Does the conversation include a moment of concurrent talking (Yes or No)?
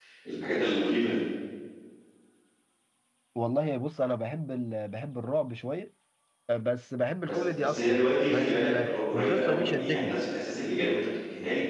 Yes